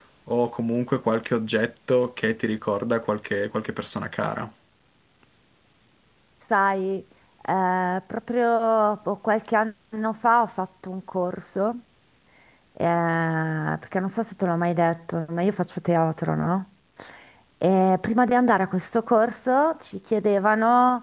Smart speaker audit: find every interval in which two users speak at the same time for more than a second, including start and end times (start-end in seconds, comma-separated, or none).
none